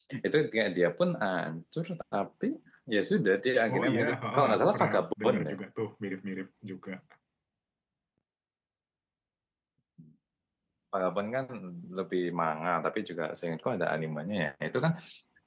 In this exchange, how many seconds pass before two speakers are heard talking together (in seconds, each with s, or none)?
3.7 s